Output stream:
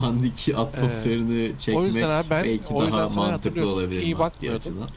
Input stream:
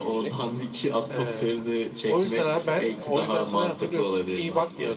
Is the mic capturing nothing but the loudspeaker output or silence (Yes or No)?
Yes